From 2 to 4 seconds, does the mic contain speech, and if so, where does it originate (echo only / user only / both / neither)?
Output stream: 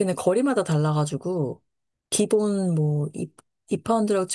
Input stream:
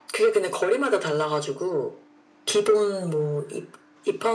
echo only